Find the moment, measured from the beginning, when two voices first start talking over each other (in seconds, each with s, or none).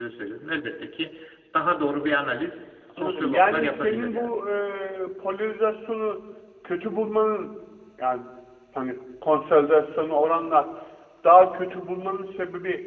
3.0 s